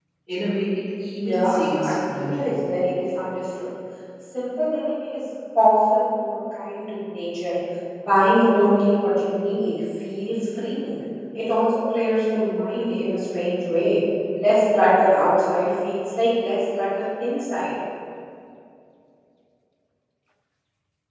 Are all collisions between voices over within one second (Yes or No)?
No